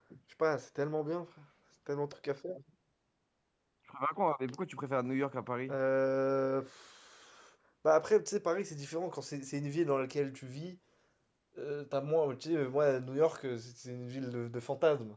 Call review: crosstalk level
none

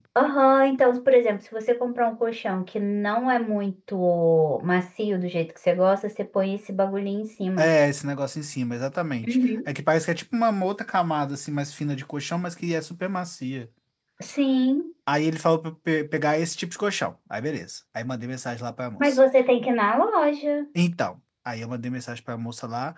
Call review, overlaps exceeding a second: none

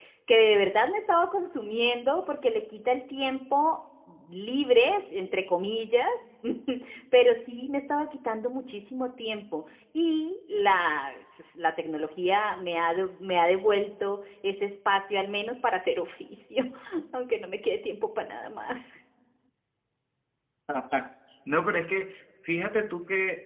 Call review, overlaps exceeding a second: none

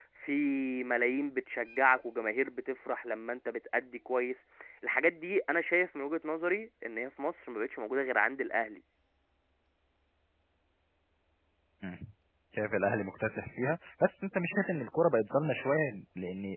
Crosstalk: none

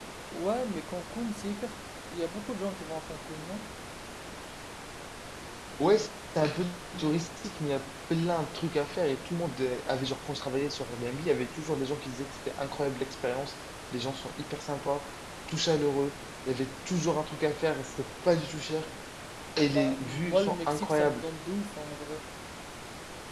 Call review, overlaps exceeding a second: present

